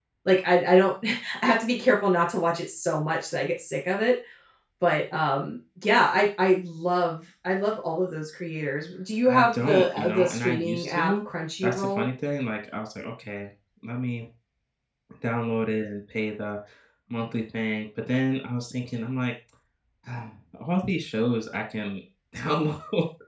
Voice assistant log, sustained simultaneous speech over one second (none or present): present